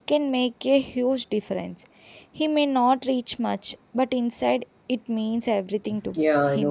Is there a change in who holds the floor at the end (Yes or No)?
Yes